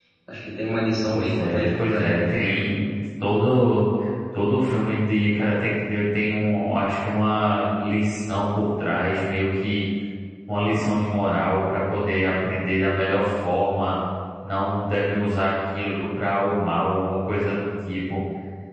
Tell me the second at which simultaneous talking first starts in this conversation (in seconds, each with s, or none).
1.1 s